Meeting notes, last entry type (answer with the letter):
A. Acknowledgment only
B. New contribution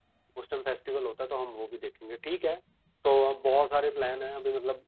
A